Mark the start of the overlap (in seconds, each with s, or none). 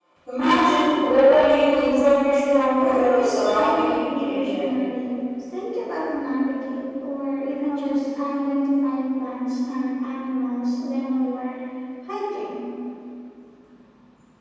2.7 s